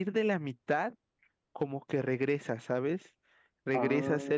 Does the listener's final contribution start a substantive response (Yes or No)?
No